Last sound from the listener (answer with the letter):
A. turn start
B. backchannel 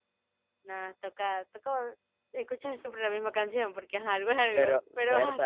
A